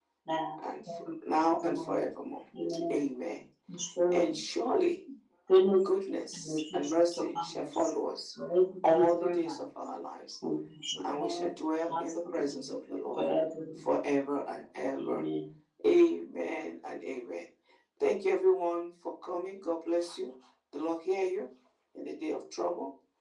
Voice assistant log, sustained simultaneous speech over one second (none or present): present